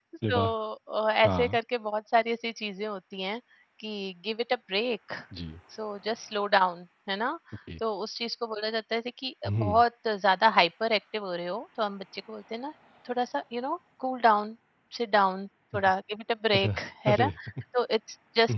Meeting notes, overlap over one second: none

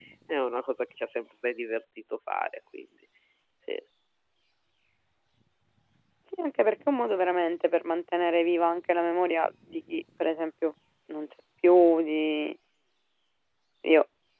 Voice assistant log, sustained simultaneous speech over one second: none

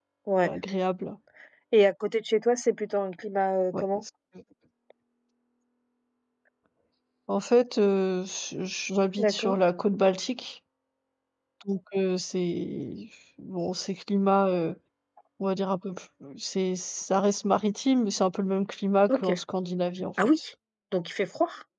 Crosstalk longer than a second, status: none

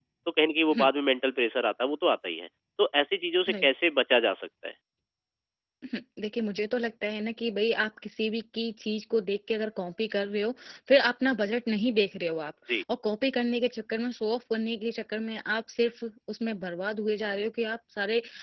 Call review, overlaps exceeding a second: none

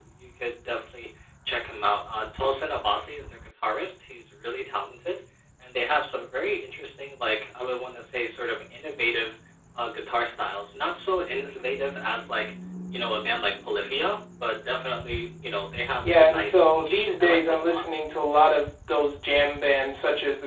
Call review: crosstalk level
present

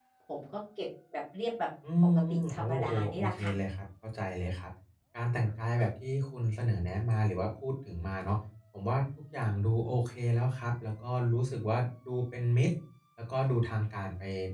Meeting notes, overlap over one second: present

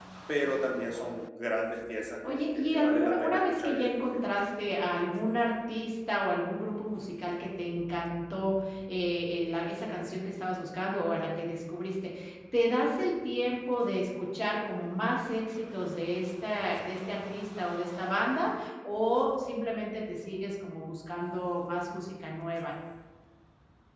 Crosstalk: present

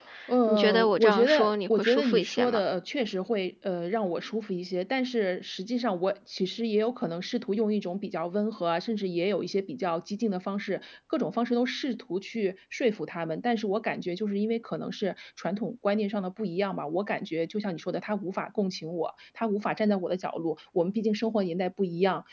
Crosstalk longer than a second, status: present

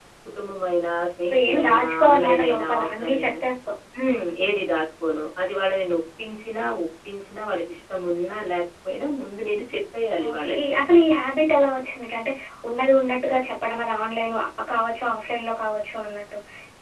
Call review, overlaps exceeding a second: present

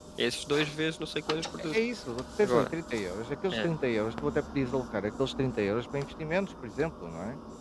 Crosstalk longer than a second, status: none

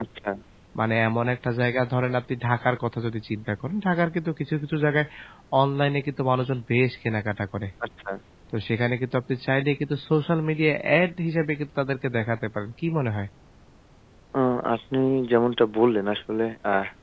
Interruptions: none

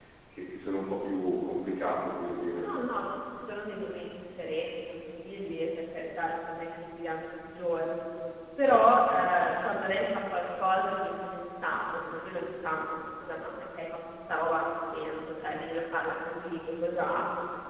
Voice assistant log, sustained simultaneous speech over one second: none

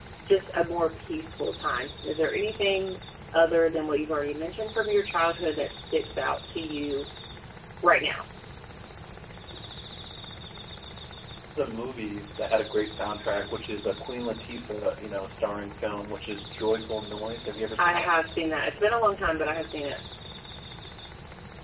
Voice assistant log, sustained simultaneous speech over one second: none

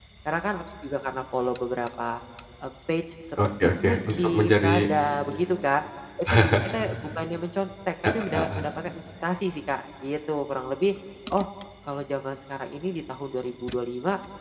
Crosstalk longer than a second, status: present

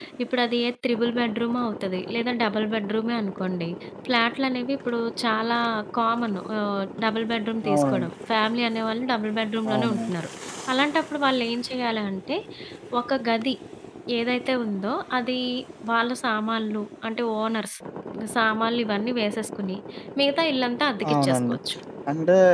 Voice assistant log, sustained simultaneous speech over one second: none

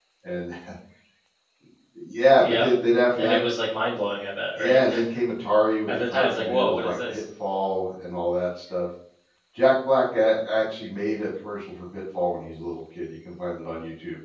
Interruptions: present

